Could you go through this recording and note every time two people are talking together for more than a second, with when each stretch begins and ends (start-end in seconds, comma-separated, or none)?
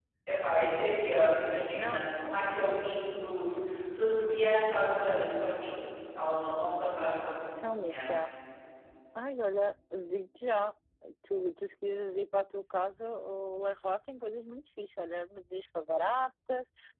none